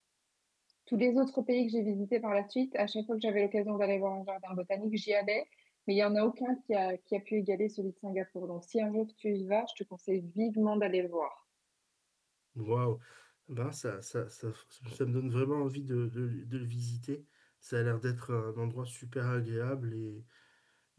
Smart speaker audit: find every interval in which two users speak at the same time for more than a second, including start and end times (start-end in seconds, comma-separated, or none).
none